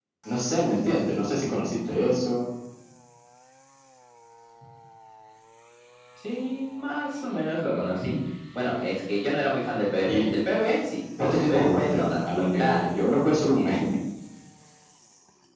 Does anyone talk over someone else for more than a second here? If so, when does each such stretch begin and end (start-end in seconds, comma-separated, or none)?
11.2-12.8